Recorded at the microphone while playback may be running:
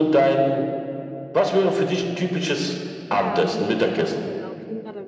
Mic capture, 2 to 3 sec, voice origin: echo only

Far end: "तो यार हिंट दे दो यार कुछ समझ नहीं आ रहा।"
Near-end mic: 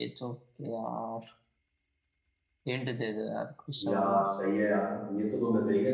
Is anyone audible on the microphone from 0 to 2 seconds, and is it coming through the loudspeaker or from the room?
echo only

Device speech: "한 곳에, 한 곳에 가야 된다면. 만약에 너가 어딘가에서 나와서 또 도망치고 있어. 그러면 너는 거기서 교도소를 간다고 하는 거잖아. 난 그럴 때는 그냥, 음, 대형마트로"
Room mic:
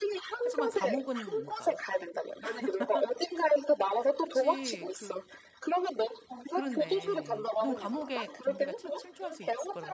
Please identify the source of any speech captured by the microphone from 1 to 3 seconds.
both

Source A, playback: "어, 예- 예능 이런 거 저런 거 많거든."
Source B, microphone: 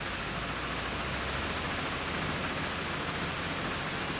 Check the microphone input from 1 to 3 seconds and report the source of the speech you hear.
neither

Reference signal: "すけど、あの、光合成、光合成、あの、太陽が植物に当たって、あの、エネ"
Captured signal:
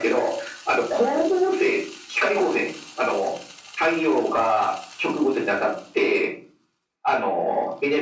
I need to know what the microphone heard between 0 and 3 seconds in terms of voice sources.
echo only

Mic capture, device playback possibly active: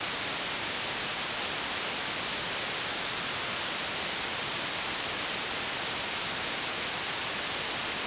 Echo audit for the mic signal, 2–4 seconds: neither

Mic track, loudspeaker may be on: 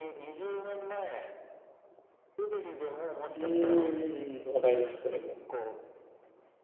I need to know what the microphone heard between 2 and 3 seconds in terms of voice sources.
echo only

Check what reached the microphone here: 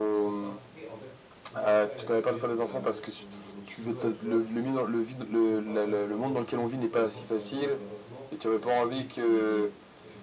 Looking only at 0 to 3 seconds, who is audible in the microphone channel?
both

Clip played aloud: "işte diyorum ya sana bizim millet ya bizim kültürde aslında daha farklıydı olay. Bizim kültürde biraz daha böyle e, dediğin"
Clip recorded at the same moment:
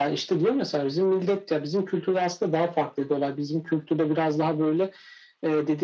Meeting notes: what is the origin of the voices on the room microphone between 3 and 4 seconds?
echo only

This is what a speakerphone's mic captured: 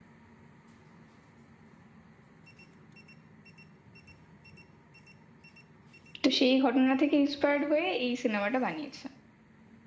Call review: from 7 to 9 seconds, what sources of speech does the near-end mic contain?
user only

